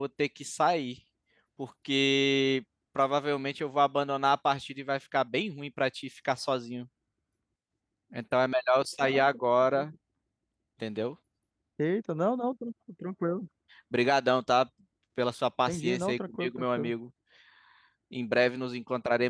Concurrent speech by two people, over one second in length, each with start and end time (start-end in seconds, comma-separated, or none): 15.7-16.9